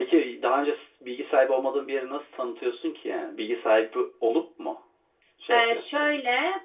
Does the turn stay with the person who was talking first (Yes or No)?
No